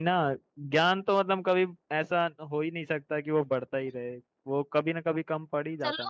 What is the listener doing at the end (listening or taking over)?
taking over